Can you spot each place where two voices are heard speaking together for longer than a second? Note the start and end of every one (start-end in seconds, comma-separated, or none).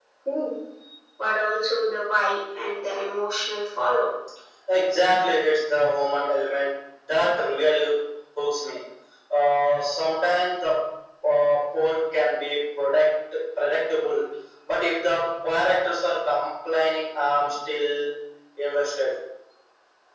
none